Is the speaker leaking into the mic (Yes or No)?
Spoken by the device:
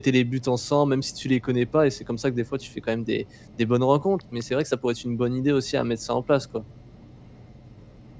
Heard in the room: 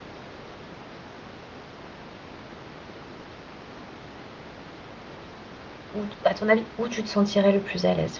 No